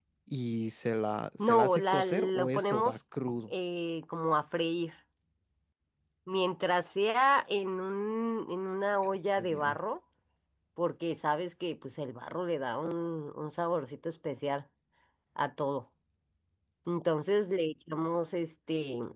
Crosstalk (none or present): present